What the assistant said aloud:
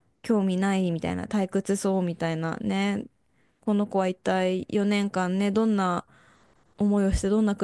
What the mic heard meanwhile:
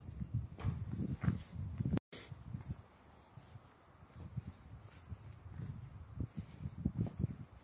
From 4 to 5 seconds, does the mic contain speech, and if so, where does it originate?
neither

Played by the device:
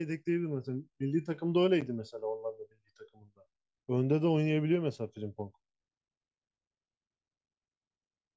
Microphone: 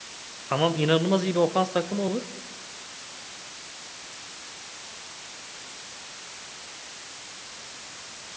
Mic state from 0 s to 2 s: user only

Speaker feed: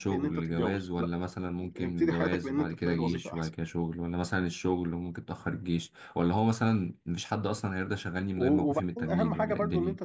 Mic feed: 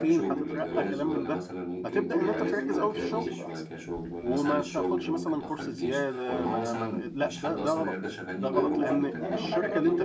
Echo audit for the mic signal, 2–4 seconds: both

